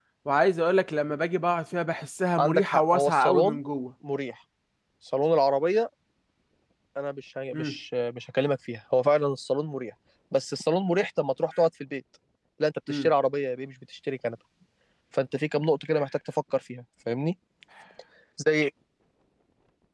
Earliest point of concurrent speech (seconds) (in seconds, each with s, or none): 2.4 s